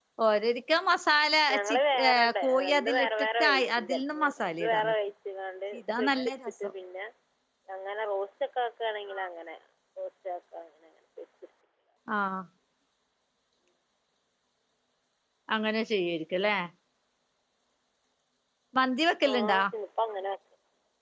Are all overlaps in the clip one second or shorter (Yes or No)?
No